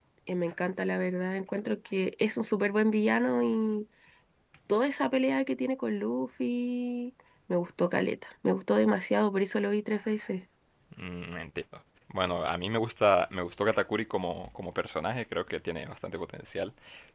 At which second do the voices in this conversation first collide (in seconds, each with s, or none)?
none